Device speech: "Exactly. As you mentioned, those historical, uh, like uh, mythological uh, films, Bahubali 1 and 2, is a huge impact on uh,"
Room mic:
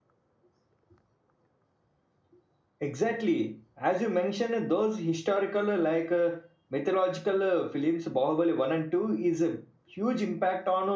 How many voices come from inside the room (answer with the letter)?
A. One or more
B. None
B